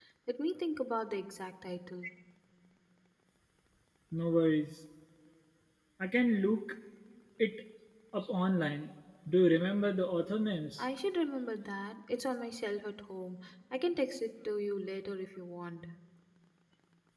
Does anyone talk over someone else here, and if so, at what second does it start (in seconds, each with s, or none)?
none